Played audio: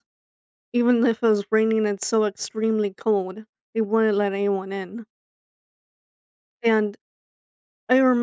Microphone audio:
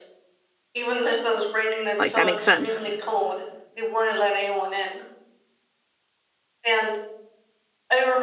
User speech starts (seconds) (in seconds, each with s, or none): 2.0 s